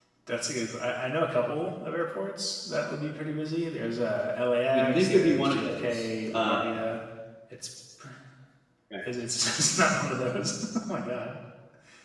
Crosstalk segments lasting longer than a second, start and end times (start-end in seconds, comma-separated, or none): 4.7-6.6